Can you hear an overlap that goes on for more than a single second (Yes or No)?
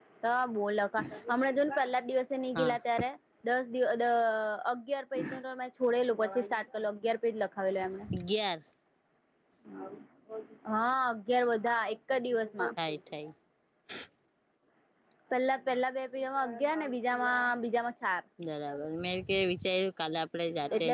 No